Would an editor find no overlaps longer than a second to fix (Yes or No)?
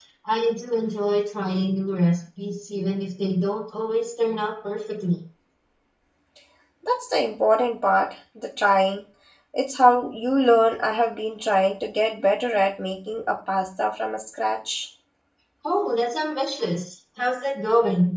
Yes